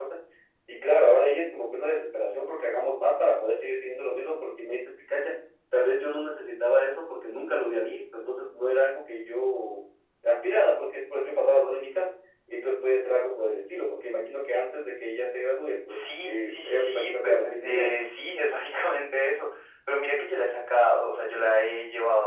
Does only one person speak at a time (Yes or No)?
No